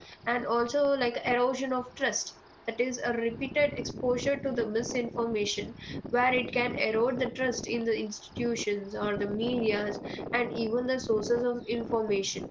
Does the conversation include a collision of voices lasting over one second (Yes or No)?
No